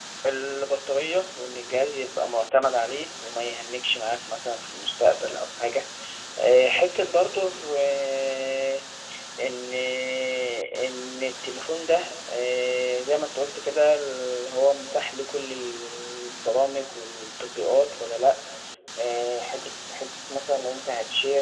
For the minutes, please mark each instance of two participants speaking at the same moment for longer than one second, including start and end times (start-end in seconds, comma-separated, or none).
none